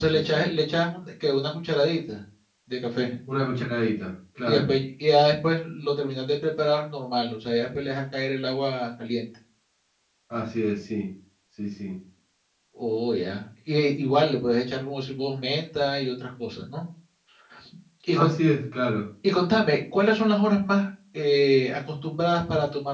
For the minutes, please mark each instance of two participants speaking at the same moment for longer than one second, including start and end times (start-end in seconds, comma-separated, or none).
none